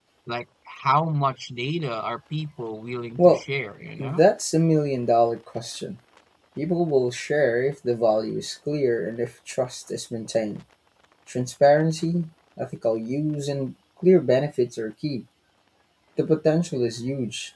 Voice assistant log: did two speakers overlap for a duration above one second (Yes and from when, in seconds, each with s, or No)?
No